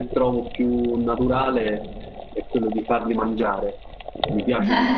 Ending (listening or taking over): taking over